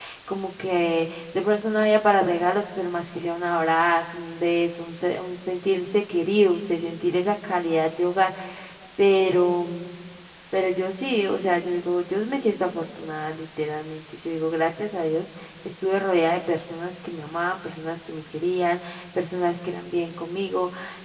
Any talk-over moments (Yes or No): No